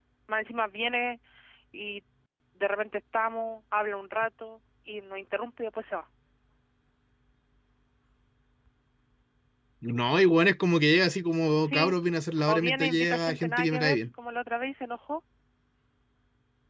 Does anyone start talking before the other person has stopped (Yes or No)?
Yes